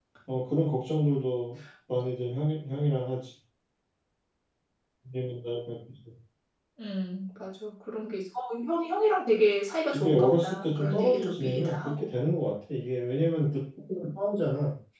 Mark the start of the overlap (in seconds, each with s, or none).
9.9 s